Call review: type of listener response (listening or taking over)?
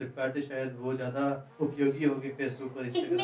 taking over